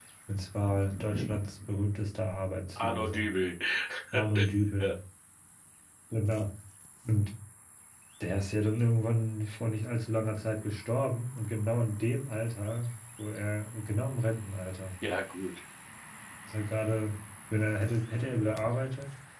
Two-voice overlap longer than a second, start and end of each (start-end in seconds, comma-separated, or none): none